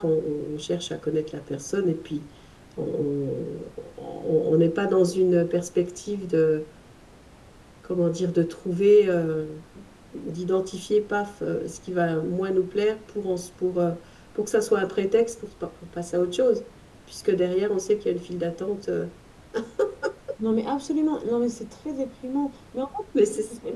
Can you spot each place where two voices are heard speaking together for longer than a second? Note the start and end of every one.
none

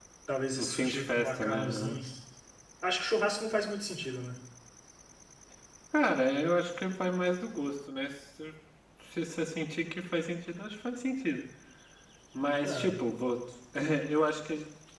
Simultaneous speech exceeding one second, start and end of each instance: 0.6-2.0

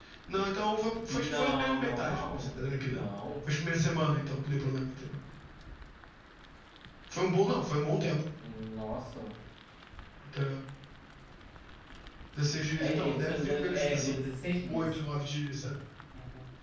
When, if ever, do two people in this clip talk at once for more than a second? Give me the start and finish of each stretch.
1.1-3.0, 12.8-14.2

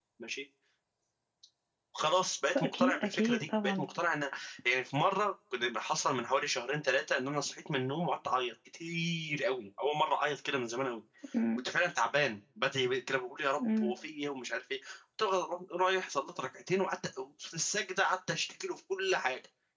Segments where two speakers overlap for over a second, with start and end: 2.5-3.9

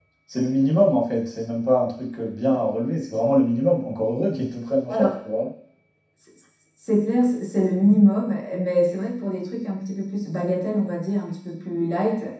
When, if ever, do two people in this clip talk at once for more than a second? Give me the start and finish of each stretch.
none

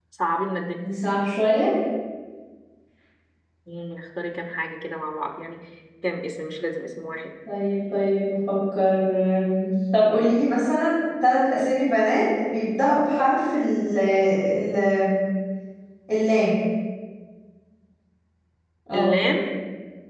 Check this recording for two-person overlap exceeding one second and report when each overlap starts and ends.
none

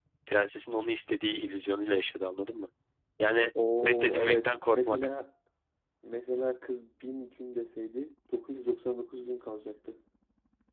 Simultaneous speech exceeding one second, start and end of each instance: 3.8-5.1

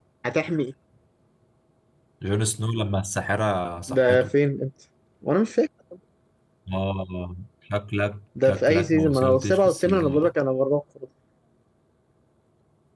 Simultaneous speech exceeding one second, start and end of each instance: 8.4-10.3

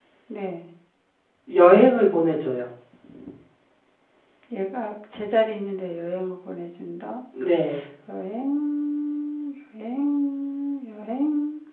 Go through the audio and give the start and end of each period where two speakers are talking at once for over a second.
none

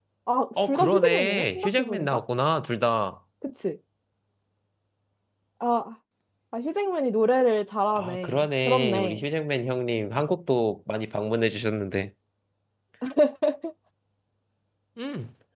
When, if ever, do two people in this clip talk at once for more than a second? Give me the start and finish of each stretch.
0.7-2.2, 8.0-9.2

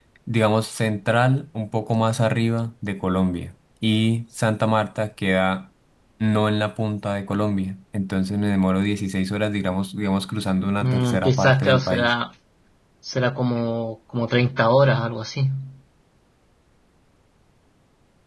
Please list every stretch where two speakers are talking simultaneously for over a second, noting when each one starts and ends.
10.8-12.1

